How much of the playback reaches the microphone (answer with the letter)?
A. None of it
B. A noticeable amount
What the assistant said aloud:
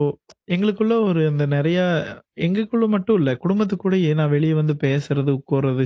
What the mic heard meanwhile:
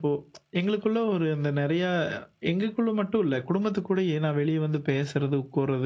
B